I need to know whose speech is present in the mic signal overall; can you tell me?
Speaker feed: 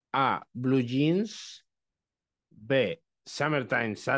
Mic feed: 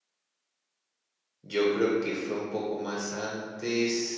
user only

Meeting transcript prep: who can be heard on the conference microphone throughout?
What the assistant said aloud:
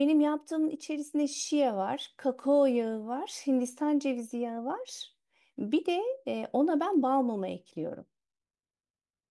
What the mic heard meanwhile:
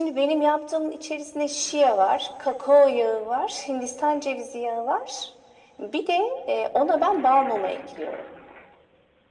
echo only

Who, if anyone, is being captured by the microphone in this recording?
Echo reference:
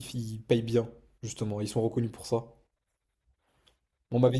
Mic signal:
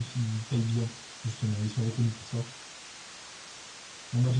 echo only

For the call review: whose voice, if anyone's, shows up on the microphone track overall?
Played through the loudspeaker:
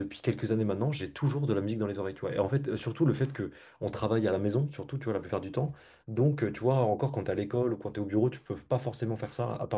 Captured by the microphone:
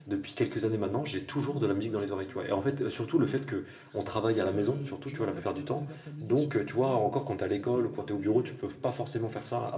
both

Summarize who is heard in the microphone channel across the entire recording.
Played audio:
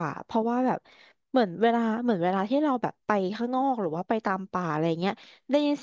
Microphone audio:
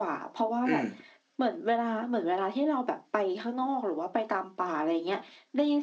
both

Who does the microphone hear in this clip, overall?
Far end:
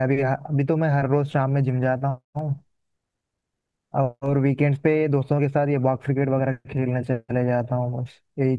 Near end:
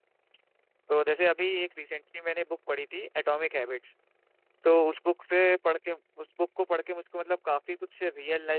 user only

